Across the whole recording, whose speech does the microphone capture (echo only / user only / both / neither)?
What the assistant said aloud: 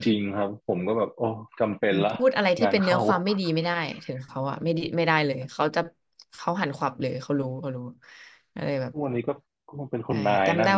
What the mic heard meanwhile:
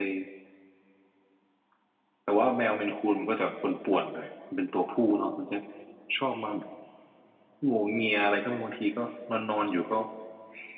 user only